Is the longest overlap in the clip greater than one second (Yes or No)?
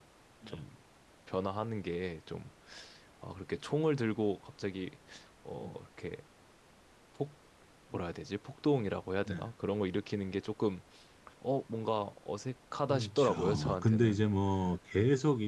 Yes